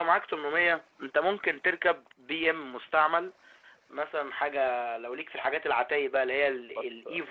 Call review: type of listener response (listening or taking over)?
listening